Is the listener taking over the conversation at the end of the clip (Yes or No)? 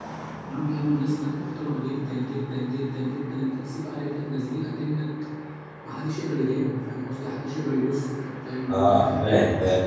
Yes